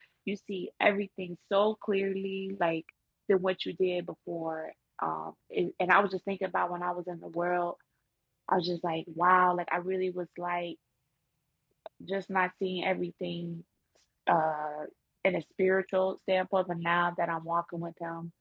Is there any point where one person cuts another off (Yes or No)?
No